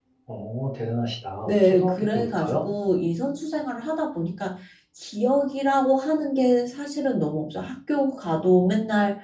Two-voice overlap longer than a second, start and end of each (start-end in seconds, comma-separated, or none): 1.4-2.7